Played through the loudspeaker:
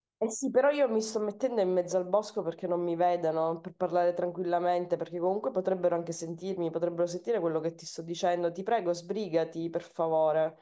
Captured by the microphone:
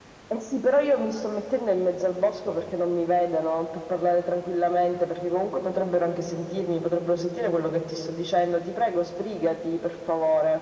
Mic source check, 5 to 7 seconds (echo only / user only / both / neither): echo only